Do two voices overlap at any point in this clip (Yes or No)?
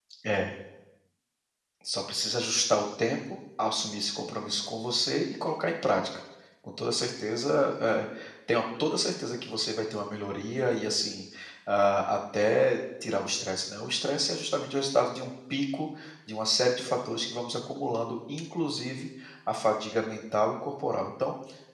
No